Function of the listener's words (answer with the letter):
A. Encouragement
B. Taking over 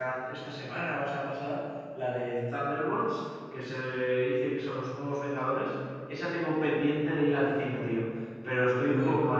A